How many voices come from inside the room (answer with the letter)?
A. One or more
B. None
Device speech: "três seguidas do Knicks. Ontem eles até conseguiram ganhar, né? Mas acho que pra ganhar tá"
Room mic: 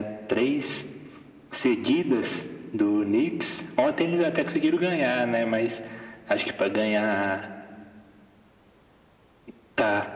B